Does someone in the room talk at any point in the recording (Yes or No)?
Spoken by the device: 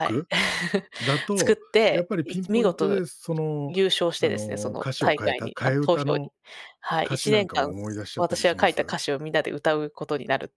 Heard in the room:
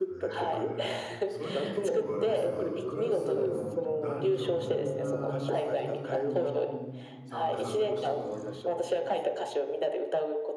Yes